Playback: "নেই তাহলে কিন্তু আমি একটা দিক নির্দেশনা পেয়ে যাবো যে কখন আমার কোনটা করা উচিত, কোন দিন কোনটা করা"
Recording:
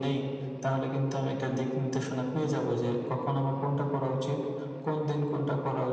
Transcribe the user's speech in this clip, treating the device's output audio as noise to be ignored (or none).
none